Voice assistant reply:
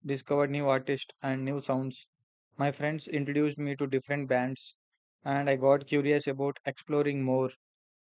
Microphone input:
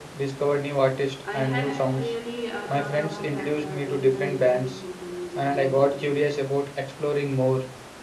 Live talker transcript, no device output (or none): I hadn't really uh, thought about that. Uh, do you know anything about uh, music theory?